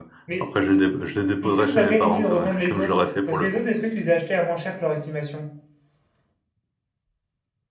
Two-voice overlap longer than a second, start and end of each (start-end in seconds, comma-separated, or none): 1.4-3.5